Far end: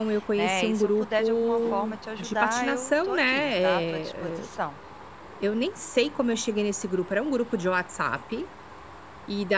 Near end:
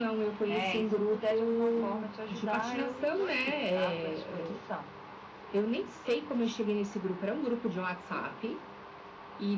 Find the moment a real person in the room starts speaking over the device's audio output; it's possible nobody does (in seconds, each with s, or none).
none